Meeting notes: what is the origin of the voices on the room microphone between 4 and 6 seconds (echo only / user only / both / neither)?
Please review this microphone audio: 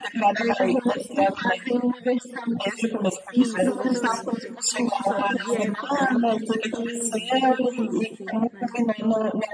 both